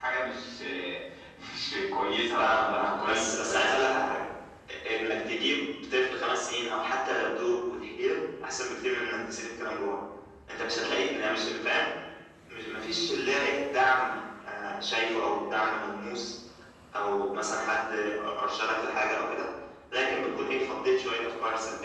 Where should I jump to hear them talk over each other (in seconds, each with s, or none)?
2.3 s